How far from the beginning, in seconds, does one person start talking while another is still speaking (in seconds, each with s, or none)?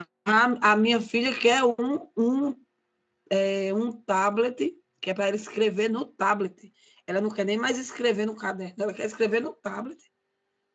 none